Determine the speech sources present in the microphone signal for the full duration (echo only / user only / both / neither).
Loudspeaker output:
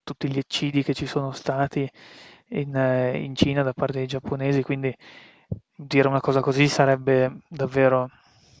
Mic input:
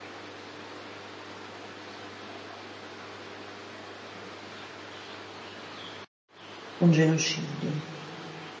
user only